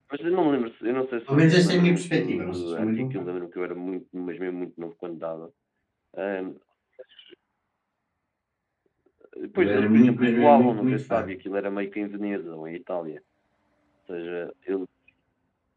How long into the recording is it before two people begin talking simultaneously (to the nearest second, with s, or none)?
1 s